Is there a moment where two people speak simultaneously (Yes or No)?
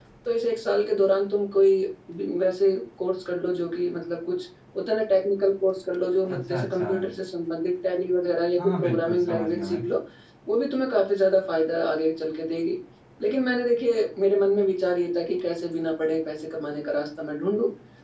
Yes